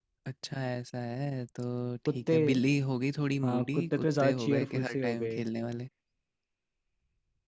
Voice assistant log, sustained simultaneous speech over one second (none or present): present